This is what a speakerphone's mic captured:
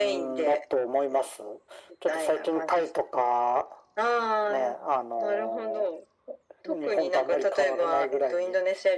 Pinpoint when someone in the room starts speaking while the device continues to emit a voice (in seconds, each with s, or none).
none